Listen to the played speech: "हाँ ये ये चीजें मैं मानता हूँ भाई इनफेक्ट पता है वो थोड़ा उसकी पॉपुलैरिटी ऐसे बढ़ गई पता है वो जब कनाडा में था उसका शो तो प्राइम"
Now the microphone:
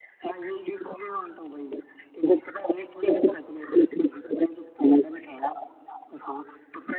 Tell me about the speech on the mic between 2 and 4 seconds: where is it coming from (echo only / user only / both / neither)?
echo only